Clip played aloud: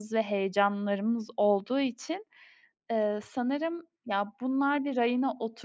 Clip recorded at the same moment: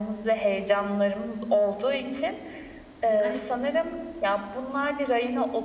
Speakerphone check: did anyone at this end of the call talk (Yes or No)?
Yes